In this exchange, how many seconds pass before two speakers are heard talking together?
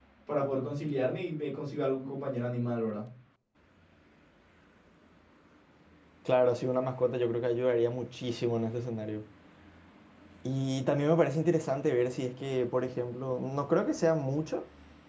none

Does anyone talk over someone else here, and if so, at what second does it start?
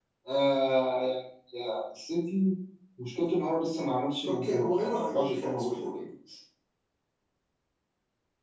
4.2 s

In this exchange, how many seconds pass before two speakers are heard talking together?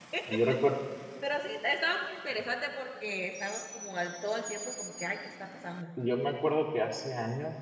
none

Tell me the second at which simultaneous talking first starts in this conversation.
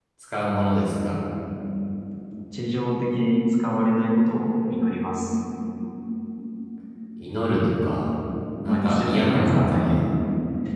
8.7 s

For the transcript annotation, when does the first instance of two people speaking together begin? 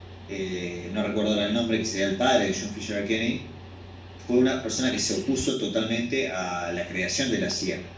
none

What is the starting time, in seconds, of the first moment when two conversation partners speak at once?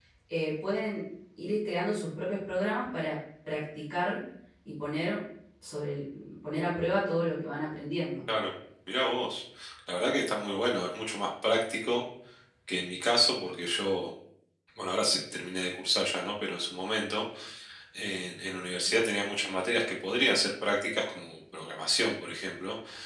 none

